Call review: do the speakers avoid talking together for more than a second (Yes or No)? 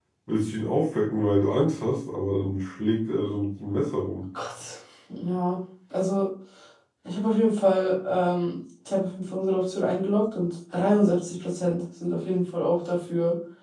Yes